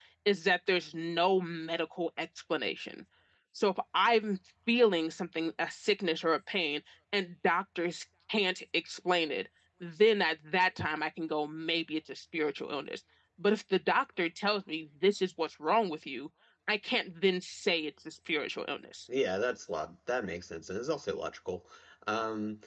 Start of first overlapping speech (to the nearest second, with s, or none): none